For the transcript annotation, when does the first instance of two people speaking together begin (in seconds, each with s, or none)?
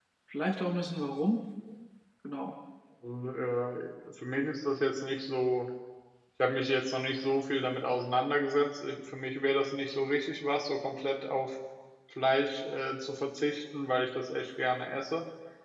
none